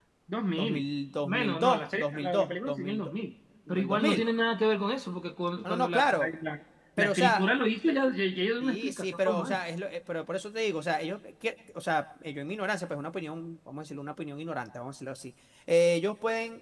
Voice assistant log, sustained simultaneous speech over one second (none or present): present